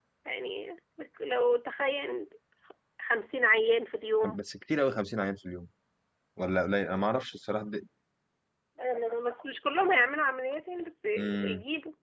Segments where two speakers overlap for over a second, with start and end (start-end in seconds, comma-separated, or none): none